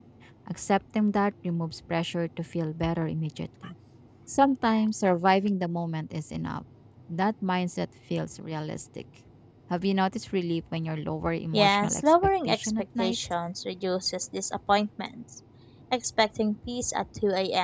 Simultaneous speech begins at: 11.5 s

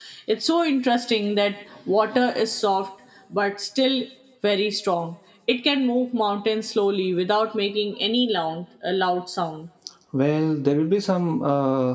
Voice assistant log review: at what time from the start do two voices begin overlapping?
none

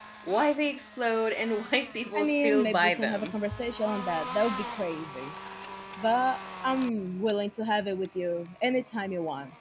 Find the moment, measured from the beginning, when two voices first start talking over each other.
2.1 s

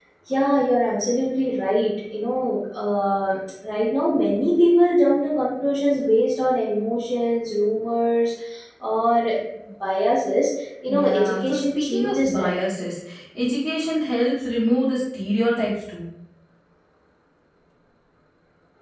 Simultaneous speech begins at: 10.9 s

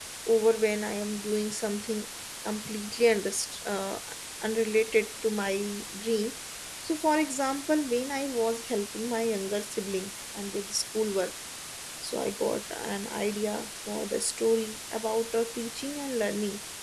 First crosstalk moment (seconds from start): none

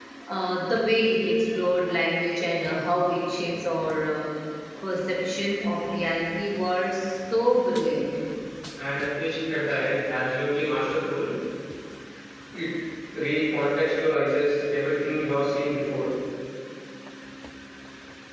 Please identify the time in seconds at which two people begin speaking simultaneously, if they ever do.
none

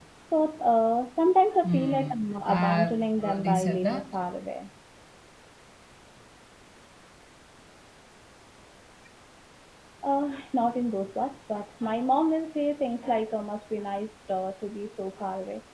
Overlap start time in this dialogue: 1.6 s

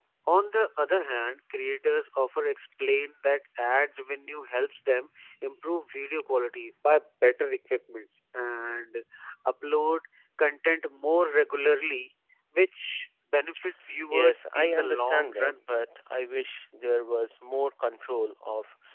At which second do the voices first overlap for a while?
14.1 s

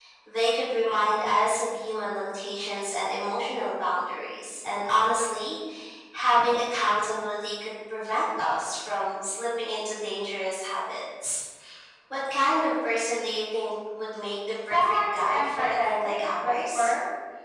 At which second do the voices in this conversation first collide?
14.7 s

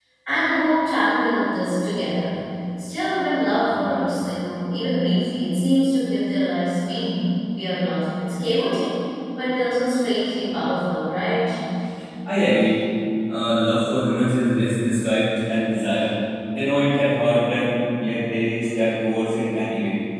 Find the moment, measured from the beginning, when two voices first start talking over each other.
none

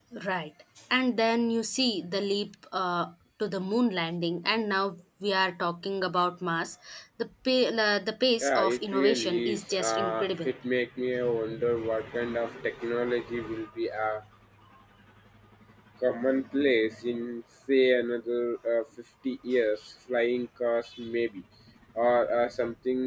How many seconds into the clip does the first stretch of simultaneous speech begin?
8.4 s

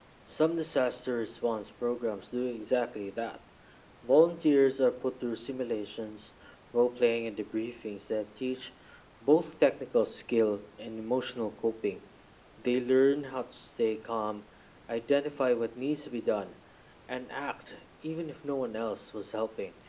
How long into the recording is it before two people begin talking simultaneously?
none

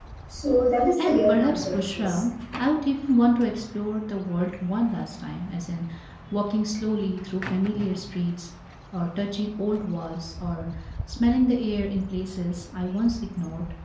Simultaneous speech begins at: 1.0 s

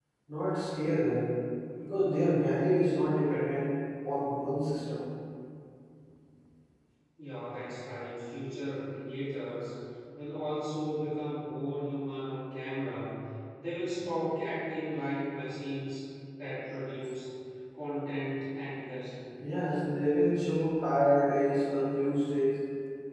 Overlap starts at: none

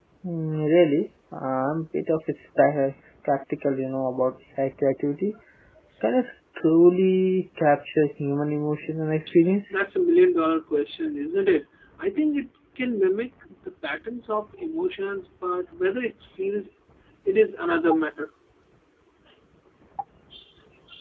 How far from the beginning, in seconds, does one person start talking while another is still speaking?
none

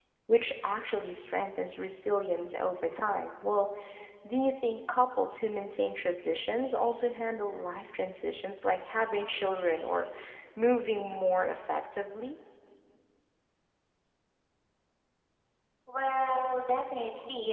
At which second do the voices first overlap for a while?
none

